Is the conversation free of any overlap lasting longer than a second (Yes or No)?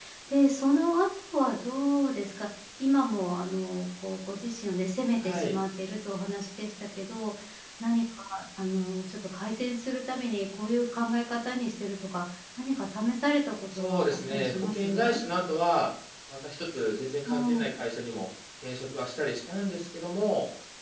No